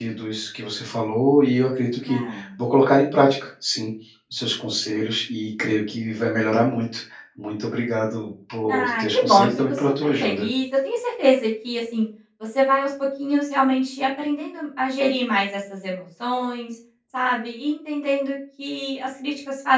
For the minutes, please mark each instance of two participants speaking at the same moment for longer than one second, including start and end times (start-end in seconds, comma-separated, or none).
8.7-10.5